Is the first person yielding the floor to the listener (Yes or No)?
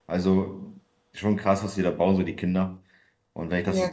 No